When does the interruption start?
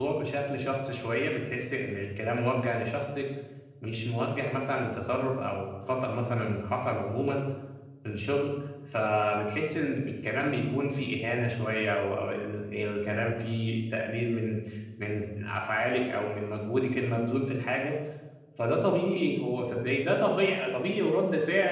none

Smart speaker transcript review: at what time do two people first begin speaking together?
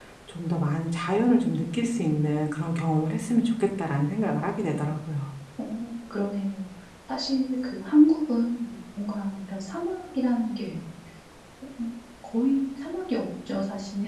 none

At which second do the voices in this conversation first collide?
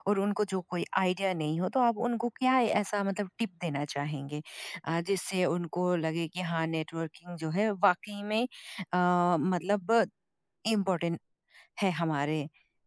none

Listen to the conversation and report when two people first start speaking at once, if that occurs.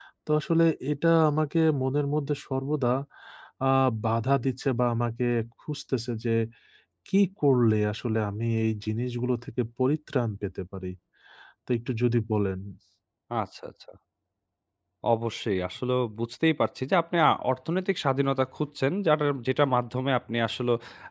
none

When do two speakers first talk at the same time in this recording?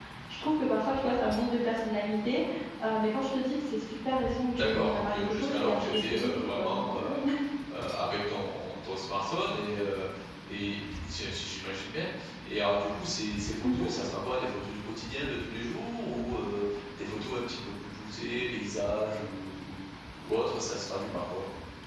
4.6 s

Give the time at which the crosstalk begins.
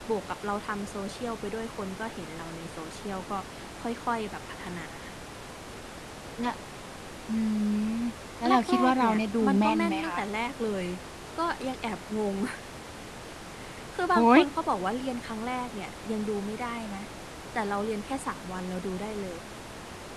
8.7 s

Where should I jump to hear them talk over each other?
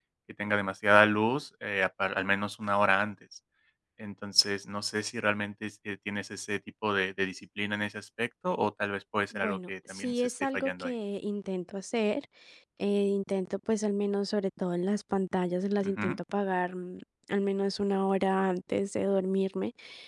9.3 s

